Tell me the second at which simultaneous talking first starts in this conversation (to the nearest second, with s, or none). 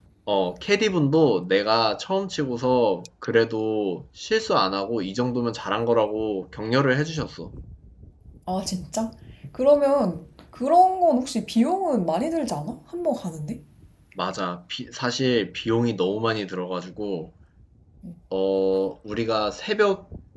none